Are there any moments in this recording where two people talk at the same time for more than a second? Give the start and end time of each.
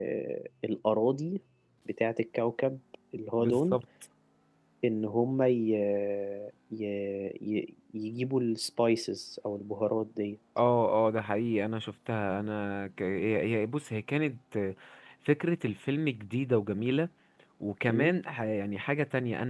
none

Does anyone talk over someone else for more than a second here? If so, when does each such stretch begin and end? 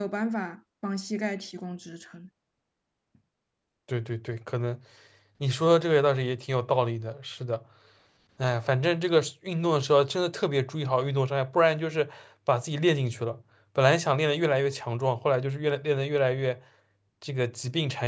none

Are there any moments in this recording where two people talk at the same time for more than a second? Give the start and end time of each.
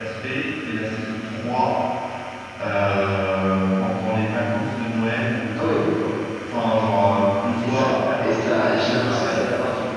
8.2-9.4

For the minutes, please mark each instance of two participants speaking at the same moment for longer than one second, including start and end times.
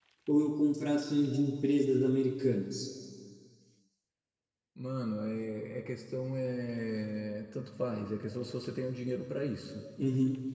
none

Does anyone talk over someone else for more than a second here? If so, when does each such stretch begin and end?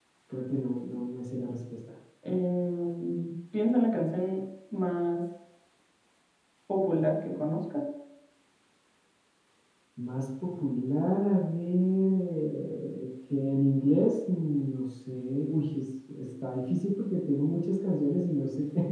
none

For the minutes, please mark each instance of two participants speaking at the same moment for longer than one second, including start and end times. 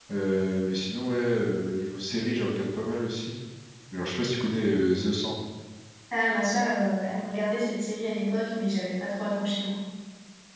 none

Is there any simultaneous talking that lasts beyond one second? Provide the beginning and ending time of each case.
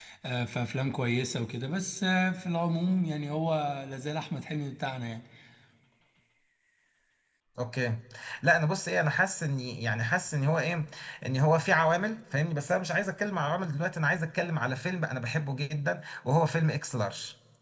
none

